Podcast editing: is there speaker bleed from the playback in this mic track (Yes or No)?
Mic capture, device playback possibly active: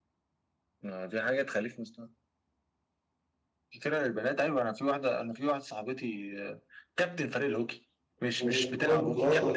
Yes